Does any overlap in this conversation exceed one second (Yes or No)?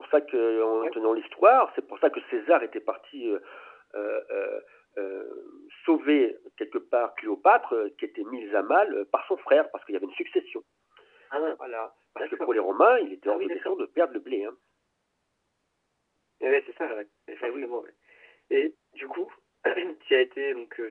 No